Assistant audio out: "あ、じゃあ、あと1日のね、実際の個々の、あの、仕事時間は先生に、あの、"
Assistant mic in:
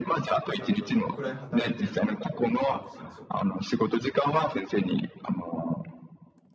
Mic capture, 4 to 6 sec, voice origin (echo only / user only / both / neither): echo only